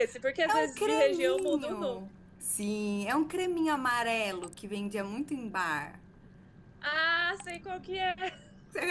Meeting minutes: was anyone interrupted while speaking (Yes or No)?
Yes